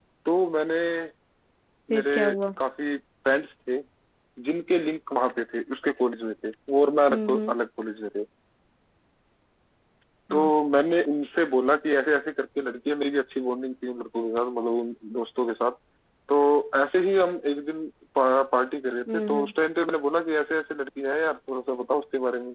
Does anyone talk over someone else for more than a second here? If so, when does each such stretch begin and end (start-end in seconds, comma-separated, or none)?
none